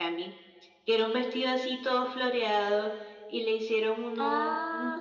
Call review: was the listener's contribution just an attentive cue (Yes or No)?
Yes